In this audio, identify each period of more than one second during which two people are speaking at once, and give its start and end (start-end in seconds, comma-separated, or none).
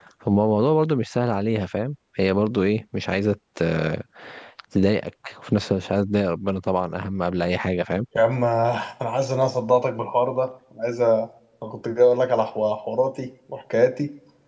none